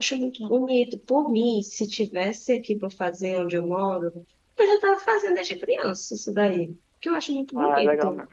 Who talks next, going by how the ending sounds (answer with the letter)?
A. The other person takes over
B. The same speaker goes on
A